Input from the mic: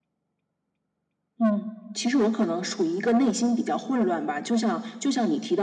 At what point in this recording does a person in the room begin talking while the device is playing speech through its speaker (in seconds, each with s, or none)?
none